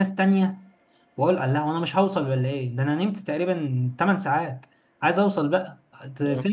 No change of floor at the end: Yes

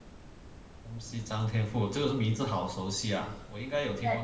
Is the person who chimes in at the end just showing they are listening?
No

